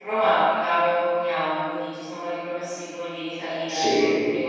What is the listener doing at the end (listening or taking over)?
listening